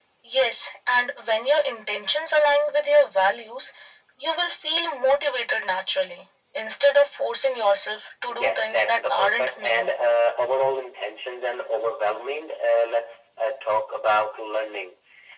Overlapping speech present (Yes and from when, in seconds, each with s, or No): Yes, from 8.3 s